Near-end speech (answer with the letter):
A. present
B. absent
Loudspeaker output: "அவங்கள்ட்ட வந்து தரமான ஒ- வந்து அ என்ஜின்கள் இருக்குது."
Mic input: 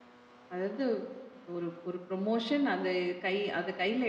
A